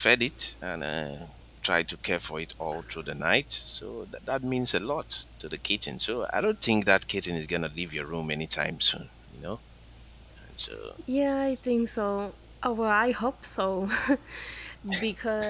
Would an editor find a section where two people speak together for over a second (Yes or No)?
No